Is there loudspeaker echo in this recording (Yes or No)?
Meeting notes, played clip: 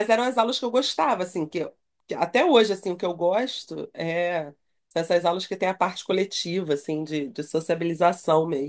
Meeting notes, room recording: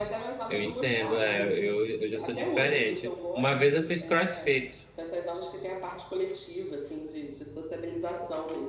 Yes